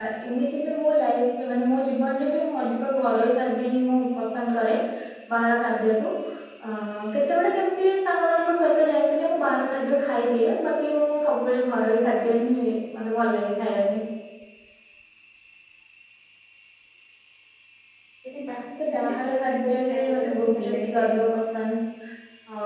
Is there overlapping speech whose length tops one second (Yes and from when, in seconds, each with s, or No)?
Yes, from 18.9 s